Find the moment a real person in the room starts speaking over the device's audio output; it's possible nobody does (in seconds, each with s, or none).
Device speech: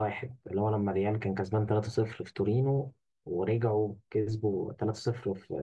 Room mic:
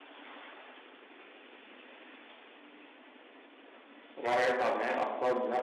4.2 s